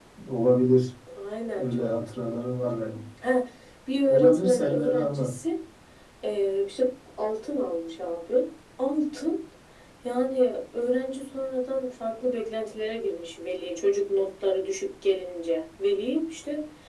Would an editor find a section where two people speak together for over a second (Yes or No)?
Yes